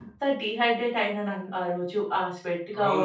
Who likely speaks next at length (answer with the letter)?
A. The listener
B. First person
A